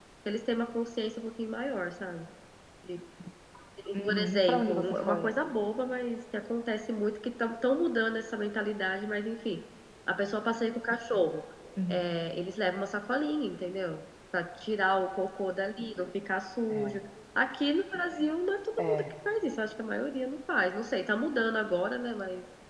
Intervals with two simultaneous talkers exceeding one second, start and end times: 4.0-5.3

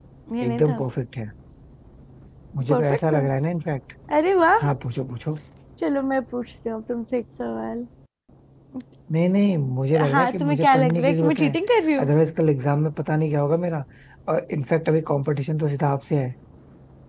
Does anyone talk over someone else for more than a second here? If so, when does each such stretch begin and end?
10.1-11.5

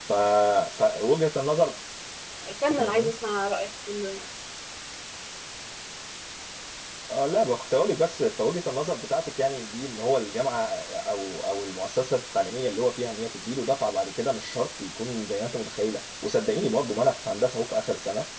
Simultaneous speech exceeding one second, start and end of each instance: none

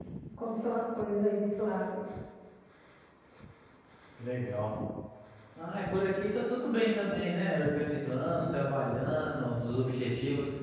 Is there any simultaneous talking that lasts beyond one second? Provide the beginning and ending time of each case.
none

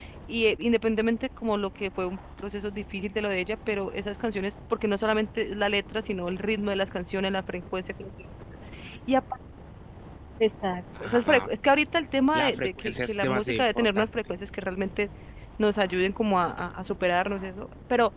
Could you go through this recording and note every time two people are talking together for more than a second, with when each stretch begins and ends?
12.3-14.1

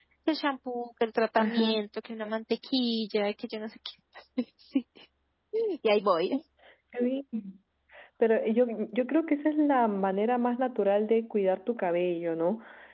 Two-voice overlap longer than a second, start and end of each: none

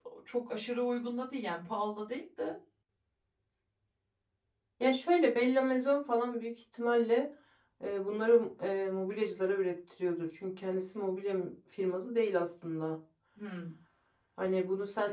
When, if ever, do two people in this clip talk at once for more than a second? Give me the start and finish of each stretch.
none

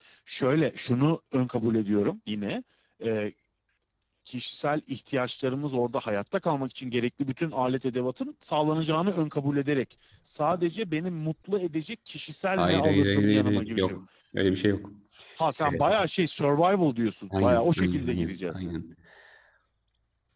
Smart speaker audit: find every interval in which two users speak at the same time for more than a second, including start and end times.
12.6-13.9, 17.4-18.6

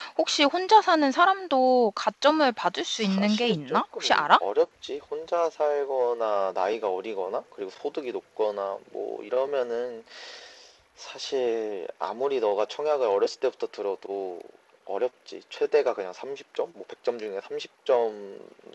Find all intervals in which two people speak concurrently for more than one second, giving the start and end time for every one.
3.0-4.2

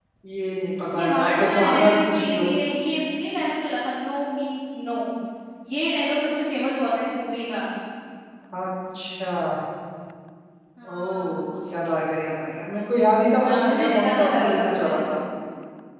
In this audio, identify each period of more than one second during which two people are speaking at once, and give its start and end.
0.9-2.5, 13.4-15.0

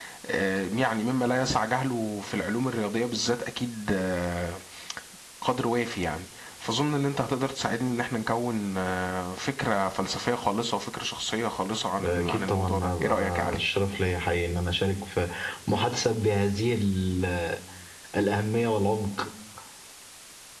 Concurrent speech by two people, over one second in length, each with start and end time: 12.0-13.6

